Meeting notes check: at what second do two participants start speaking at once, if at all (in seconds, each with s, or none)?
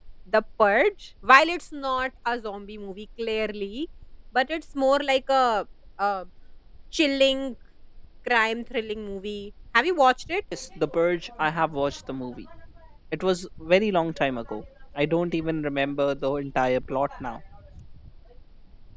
none